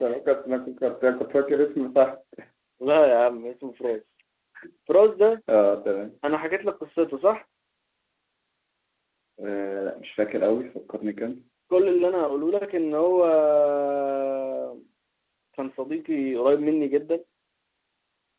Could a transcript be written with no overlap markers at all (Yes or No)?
Yes